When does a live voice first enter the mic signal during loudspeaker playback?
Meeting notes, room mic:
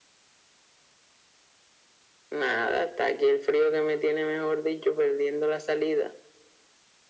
none

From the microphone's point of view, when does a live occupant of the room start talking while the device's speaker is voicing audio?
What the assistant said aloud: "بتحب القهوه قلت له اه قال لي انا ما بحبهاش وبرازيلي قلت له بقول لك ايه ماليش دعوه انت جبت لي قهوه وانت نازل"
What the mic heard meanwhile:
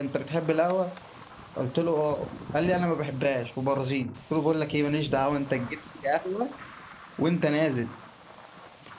none

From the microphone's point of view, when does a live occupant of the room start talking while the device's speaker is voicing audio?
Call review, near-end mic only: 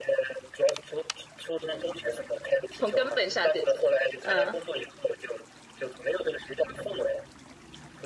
2.8 s

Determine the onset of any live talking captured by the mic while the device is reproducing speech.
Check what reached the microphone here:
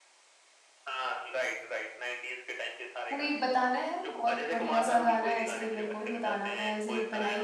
3.1 s

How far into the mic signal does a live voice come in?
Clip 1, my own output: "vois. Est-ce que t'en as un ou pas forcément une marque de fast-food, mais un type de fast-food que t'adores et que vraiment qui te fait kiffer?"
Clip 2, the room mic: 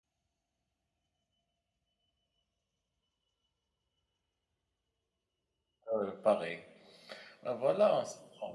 5.9 s

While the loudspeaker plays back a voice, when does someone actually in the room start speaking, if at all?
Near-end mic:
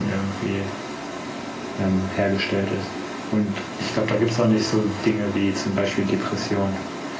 none

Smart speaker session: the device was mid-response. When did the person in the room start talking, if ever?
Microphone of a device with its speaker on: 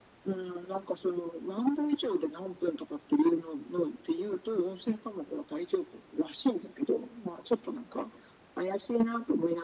none

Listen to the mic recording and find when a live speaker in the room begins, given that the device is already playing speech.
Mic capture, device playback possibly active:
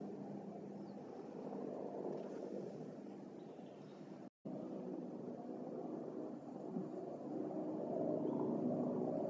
none

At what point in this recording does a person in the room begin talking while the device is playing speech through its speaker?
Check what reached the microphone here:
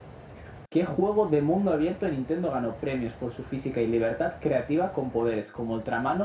none

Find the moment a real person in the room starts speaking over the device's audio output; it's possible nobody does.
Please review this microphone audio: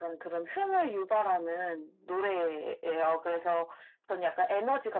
none

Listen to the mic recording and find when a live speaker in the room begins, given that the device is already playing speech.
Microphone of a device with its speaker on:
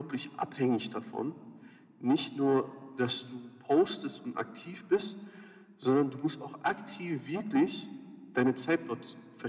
none

